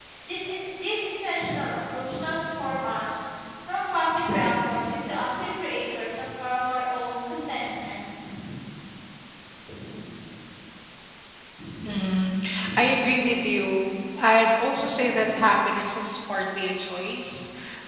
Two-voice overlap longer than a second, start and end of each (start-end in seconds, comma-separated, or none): none